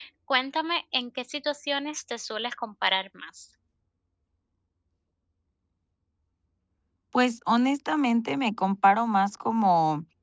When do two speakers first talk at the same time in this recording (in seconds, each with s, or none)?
none